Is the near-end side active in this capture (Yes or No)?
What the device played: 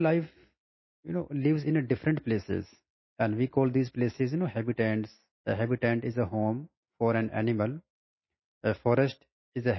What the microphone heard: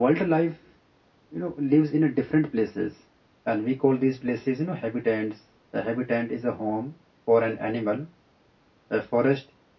No